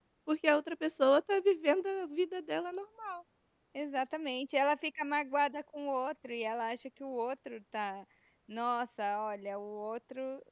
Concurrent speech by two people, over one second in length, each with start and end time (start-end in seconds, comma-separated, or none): none